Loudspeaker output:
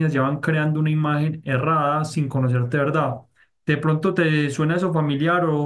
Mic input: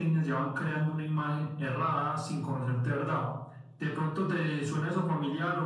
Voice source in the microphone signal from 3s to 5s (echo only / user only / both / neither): echo only